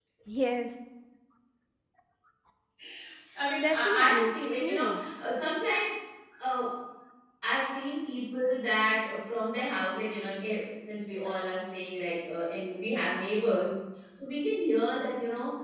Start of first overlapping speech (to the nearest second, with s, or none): 4 s